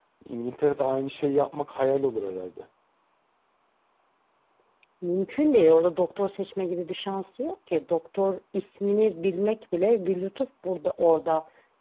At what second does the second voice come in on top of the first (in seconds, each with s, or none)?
none